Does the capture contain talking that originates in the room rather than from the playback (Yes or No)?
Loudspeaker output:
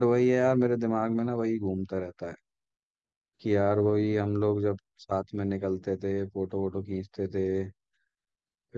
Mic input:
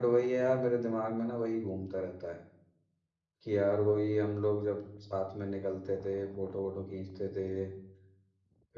No